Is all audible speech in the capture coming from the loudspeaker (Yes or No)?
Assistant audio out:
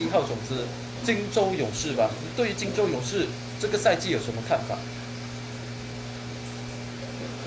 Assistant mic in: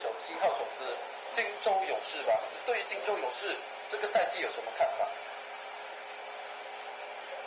Yes